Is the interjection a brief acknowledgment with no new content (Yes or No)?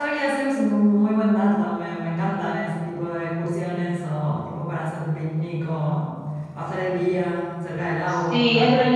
No